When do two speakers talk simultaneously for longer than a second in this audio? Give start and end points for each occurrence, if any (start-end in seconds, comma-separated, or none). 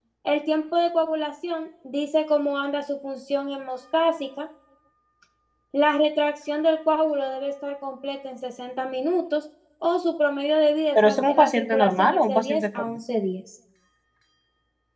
10.9-13.0